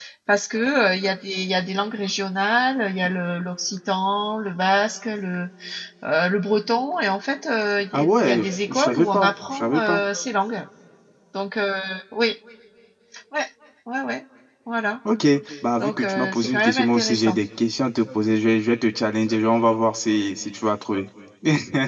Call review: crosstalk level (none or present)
present